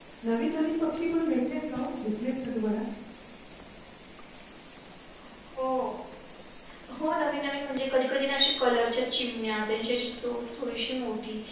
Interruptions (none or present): none